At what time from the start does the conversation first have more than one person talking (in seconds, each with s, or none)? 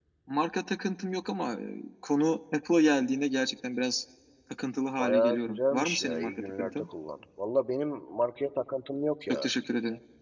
5.0 s